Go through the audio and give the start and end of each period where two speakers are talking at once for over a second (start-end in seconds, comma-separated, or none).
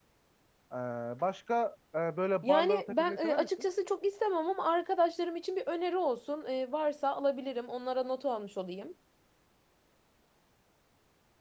2.4-3.7